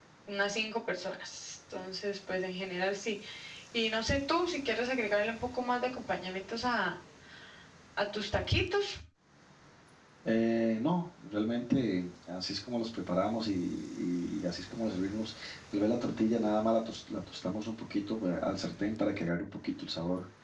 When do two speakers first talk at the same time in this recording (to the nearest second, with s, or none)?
none